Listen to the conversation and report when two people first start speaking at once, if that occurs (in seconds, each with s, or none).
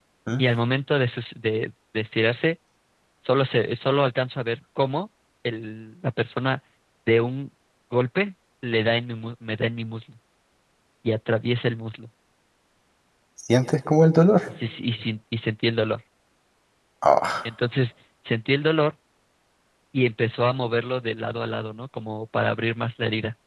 none